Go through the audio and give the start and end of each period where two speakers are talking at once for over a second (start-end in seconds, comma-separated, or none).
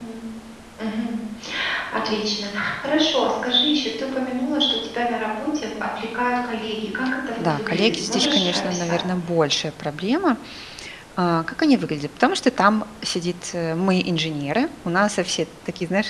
7.4-9.0